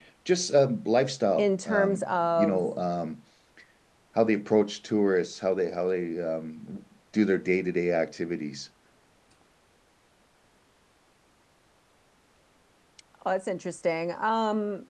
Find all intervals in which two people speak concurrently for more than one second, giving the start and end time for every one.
1.4-2.6

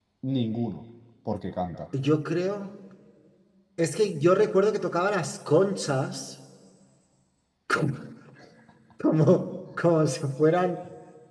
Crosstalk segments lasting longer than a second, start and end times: none

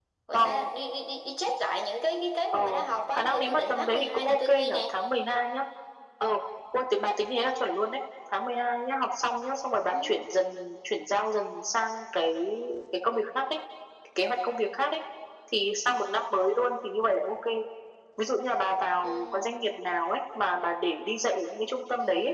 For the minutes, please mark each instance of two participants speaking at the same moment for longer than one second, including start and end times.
3.1-4.8

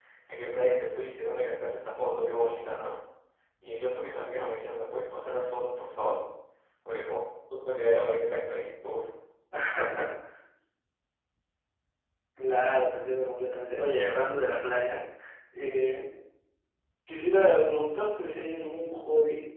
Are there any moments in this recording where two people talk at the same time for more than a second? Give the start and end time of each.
none

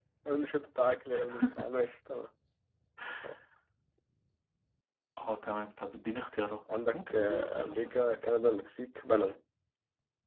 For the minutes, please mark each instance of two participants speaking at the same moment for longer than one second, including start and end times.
6.9-8.2

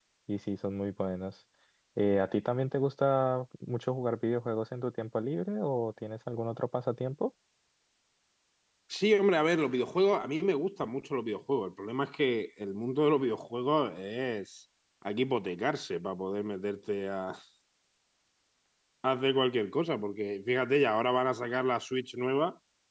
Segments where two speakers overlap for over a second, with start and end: none

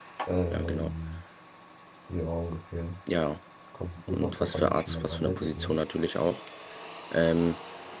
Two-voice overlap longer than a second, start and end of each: 4.1-5.8

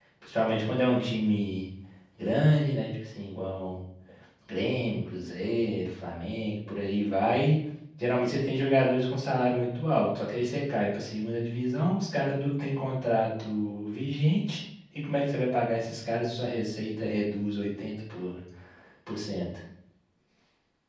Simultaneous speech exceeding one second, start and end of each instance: none

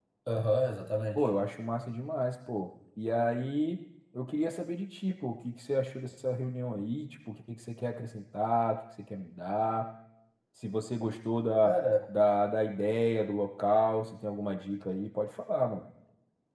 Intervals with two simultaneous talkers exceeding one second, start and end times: none

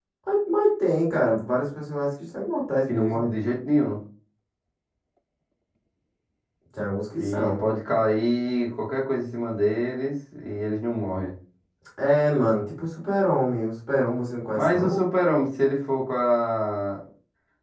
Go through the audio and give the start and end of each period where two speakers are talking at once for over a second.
none

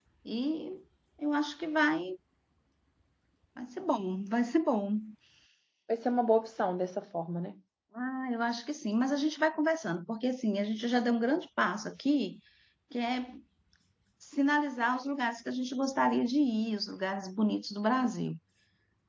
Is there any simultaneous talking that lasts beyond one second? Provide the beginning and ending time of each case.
none

